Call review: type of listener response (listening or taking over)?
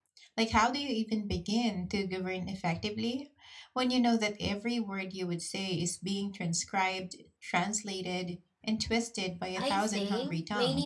taking over